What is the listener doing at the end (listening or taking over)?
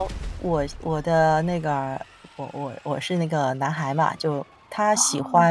listening